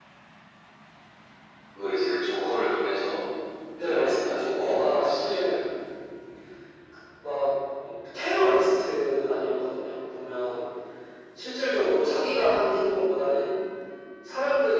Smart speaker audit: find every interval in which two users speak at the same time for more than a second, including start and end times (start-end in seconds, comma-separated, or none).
3.8-5.6